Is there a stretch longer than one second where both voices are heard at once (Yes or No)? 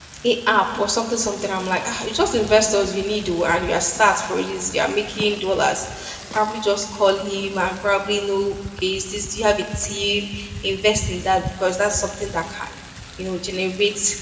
No